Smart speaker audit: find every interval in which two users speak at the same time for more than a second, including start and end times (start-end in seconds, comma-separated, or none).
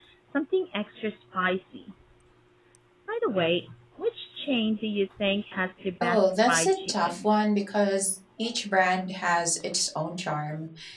6.0-7.3